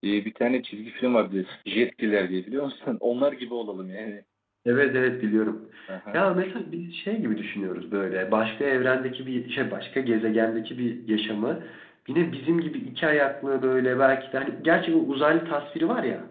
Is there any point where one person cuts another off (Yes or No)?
No